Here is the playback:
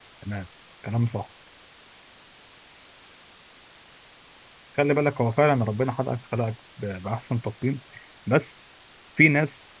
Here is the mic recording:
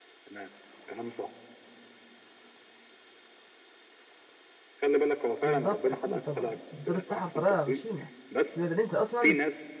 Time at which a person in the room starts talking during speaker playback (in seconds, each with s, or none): 5.4 s